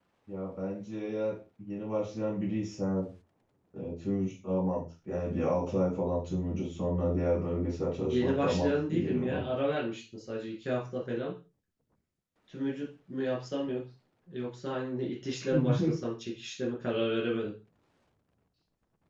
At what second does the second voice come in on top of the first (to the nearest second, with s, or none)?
8 s